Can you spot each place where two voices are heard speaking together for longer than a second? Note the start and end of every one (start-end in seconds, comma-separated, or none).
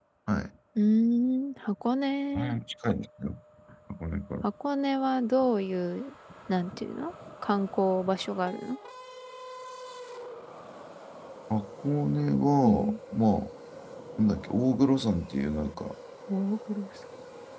none